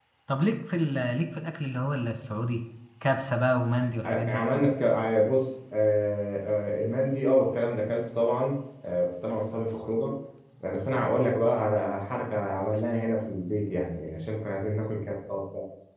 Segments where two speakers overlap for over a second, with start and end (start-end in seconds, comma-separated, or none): none